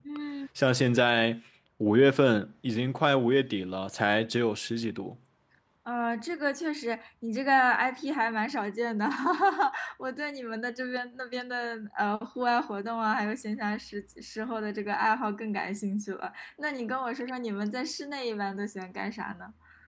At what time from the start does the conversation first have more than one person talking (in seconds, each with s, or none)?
none